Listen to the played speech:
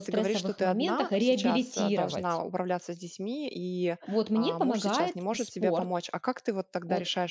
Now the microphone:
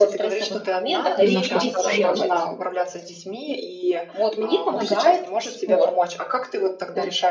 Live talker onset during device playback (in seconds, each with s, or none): 1.2 s